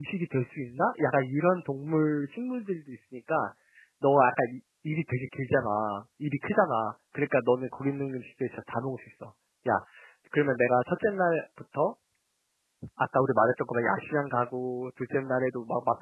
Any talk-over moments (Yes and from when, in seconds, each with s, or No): No